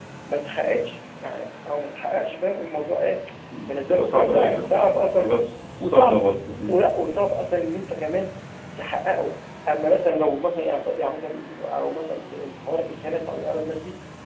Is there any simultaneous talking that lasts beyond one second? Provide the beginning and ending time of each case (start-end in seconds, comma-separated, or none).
3.9-5.3